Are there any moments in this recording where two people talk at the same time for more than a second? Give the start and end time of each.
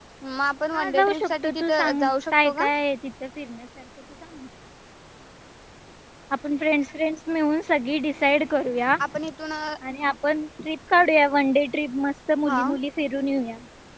0.7-2.7

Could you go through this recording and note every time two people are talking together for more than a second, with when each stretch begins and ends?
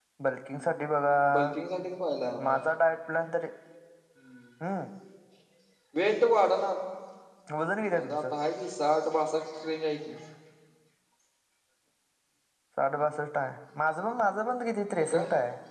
none

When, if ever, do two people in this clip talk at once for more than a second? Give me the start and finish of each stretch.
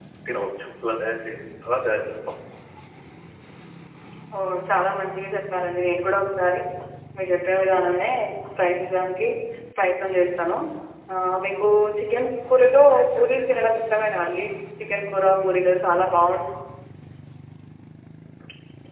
none

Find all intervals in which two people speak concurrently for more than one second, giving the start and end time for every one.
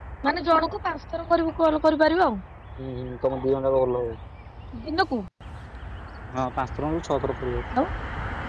none

